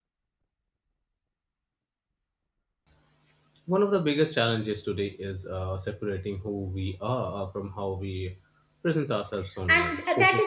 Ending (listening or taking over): taking over